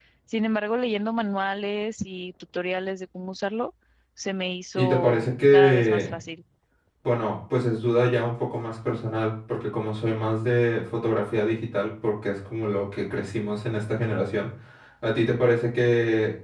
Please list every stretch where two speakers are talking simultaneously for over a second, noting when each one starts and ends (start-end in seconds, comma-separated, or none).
4.8-6.1